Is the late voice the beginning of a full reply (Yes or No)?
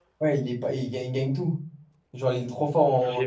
Yes